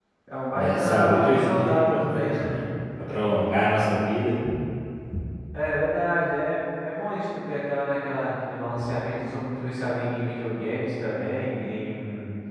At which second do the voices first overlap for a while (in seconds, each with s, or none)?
0.5 s